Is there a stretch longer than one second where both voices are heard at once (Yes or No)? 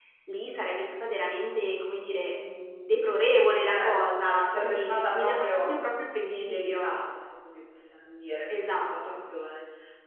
Yes